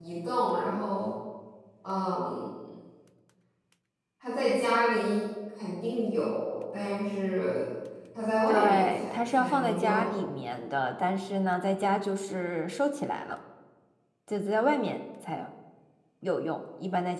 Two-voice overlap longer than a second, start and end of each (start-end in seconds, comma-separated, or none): 8.5-10.1